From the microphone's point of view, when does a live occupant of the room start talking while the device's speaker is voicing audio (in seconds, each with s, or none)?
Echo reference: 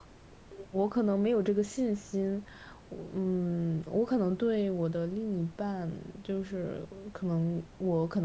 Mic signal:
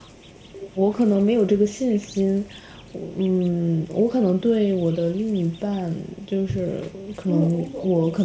7.2 s